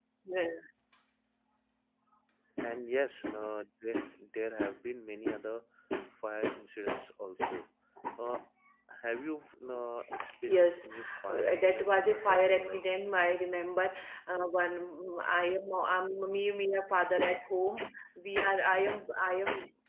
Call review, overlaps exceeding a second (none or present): present